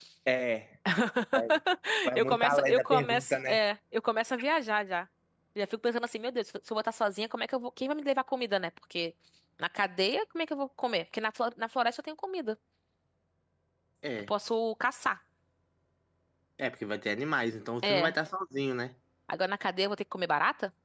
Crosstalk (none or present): present